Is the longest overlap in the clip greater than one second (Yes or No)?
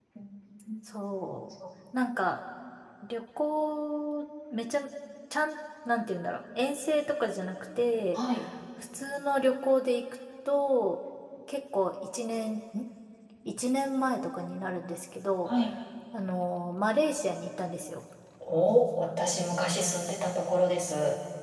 No